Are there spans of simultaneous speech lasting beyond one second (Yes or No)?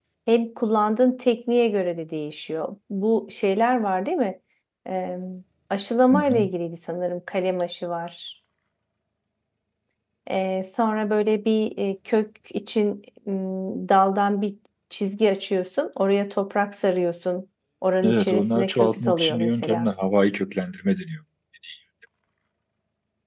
Yes